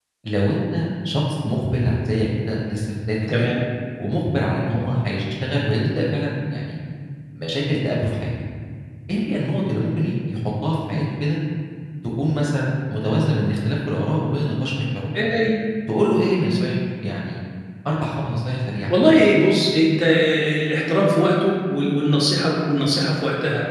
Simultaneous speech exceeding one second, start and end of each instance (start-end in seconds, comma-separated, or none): none